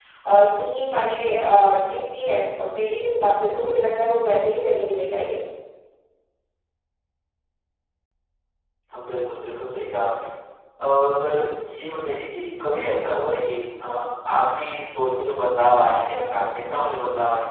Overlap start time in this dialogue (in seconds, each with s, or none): none